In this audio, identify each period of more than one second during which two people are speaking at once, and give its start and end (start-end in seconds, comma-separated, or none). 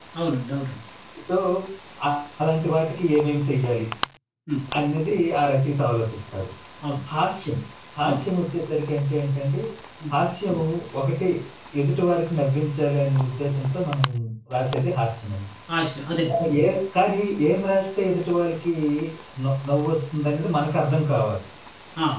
none